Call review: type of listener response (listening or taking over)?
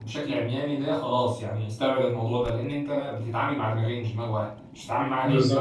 taking over